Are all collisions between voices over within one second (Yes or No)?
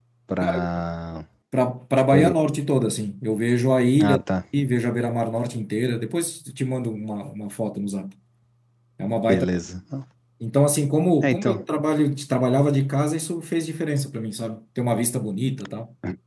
Yes